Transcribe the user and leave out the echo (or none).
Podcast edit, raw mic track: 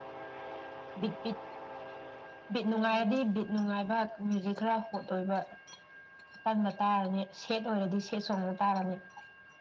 ꯎꯝ